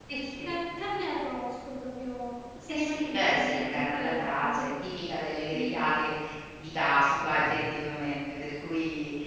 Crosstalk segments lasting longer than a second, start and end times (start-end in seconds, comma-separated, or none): 2.7-4.7